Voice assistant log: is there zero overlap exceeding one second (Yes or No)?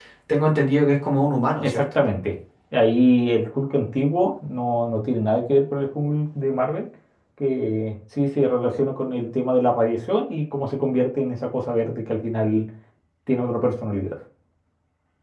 Yes